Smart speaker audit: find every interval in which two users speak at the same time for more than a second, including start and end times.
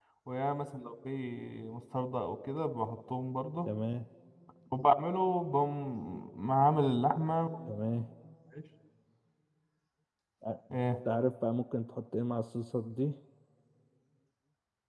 none

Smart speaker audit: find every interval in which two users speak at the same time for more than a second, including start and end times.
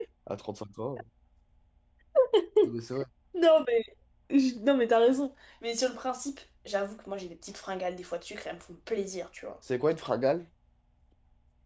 none

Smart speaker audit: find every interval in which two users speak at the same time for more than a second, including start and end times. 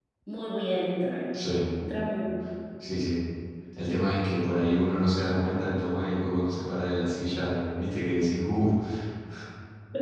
none

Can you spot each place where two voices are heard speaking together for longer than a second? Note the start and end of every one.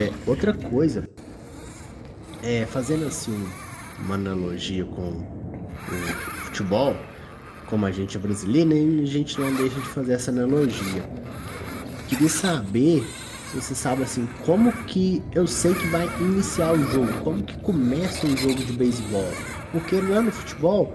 none

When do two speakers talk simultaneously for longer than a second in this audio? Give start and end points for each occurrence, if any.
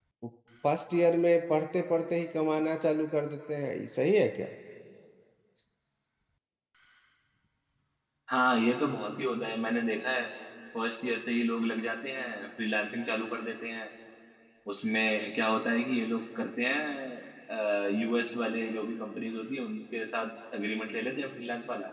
none

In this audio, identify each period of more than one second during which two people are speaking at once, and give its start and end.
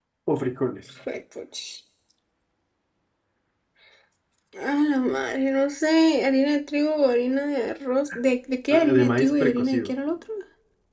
8.7-9.9

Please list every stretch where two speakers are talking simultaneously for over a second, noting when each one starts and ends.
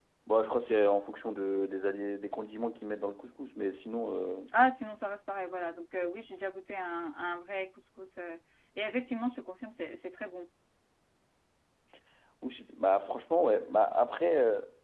none

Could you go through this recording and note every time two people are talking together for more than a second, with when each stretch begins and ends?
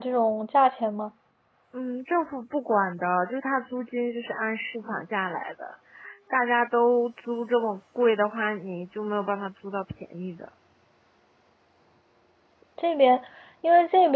none

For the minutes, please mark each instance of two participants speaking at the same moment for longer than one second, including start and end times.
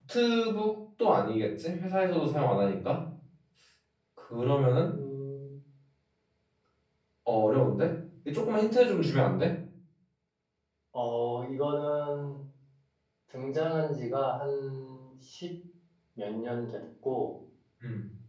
none

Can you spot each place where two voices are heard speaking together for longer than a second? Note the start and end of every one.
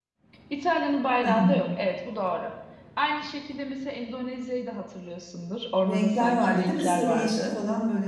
5.9-7.6

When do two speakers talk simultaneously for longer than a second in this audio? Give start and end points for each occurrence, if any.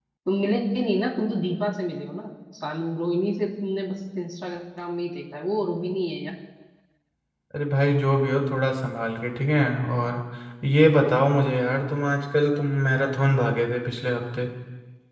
none

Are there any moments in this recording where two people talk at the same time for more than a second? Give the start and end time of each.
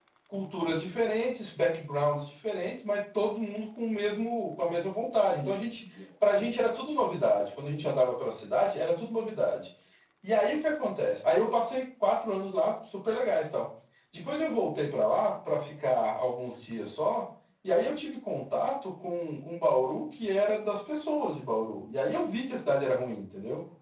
none

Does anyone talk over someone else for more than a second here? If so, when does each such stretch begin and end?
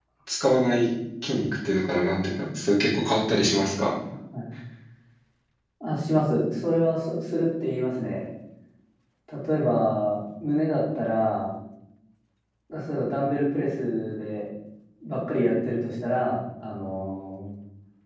none

